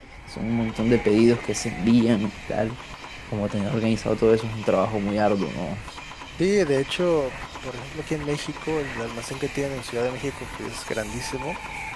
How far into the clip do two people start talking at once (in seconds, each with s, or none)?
none